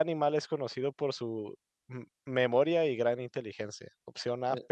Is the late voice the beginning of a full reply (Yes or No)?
No